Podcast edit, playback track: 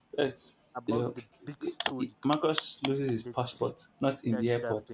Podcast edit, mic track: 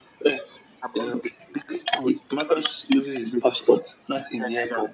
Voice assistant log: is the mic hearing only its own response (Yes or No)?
Yes